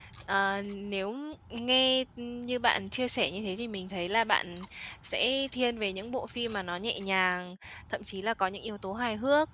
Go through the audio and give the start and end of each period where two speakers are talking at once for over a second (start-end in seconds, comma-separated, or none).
none